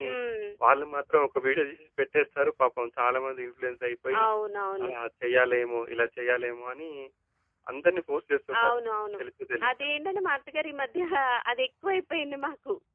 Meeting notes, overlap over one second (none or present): none